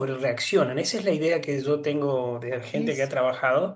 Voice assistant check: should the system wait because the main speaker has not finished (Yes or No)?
Yes